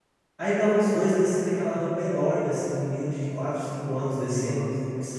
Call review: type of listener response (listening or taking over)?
listening